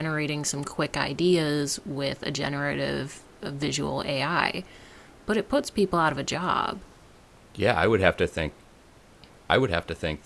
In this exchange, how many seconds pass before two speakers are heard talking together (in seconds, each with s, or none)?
none